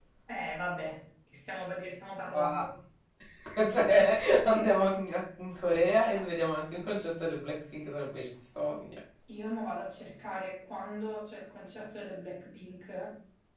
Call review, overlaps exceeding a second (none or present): none